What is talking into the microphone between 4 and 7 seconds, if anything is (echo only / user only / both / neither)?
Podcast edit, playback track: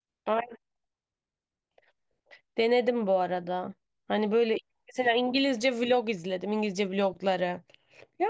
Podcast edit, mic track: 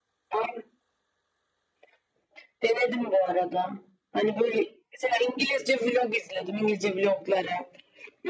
echo only